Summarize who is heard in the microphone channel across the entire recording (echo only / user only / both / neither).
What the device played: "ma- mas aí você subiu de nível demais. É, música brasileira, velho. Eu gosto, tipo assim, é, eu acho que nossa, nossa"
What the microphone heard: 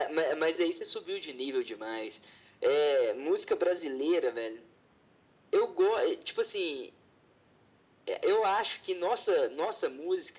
echo only